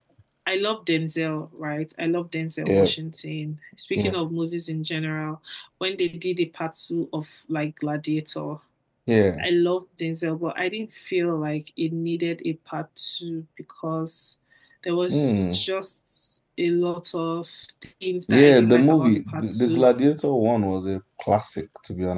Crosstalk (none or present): present